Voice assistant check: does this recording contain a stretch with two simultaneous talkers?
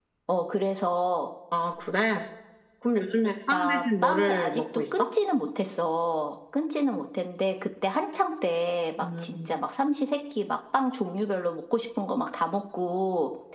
Yes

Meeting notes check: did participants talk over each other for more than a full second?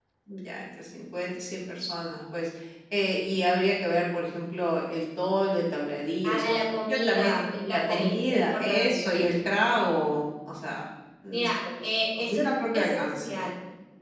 Yes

